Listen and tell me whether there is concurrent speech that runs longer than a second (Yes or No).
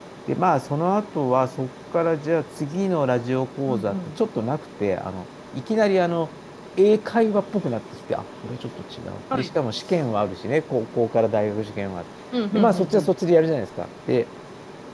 No